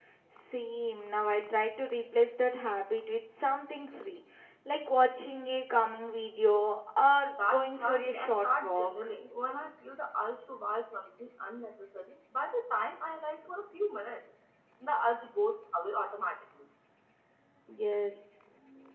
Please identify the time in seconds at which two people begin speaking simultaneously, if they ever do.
7 s

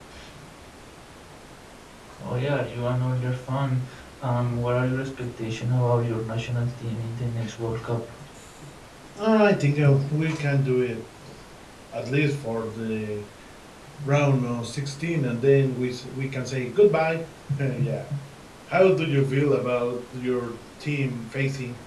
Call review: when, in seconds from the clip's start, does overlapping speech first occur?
none

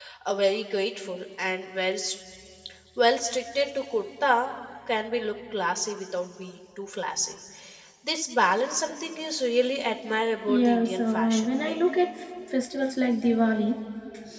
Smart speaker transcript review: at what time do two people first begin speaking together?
10 s

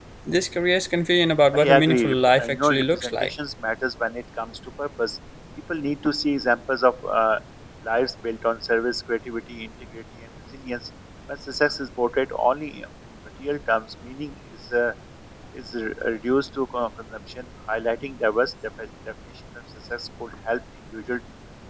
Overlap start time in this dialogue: 2 s

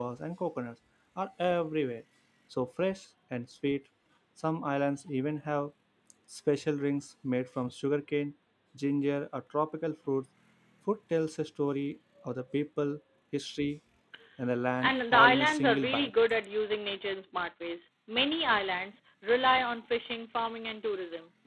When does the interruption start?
15 s

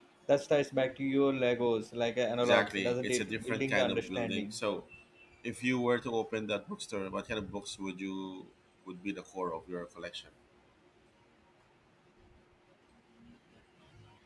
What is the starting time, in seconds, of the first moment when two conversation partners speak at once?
2 s

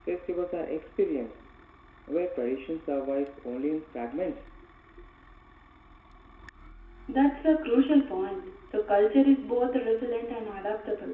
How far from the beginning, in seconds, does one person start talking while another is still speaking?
none

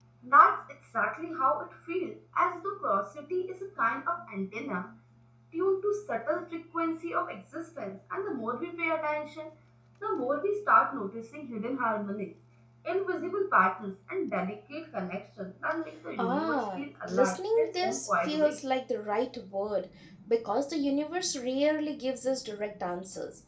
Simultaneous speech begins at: 16 s

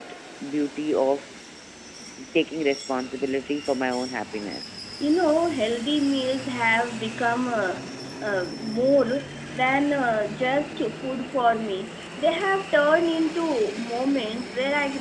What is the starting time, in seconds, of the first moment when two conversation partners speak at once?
none

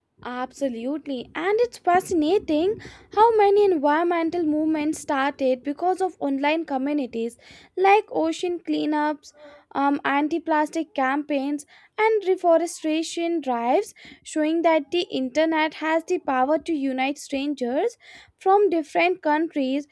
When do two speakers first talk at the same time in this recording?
none

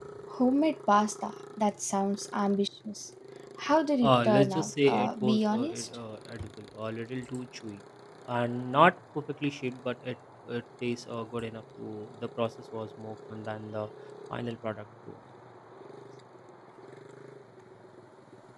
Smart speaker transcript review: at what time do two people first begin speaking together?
4 s

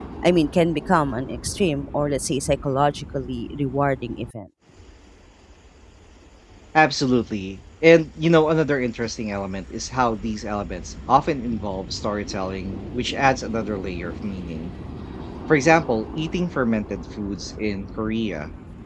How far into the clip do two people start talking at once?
none

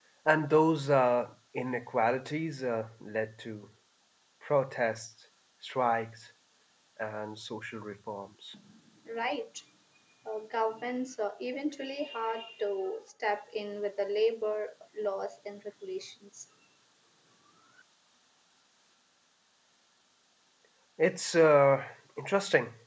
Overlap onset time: none

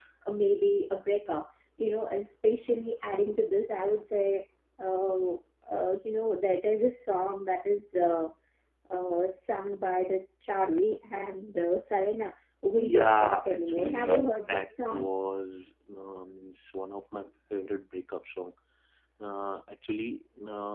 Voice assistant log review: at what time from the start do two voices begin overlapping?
13 s

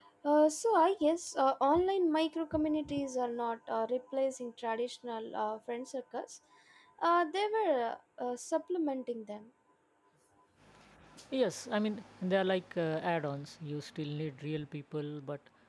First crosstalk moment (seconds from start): none

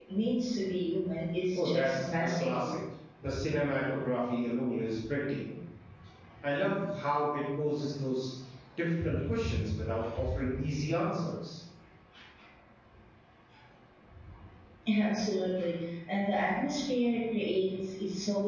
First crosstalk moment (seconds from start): 2 s

